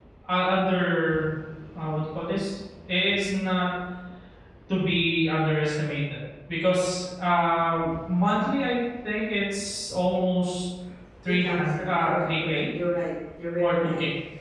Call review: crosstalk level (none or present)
present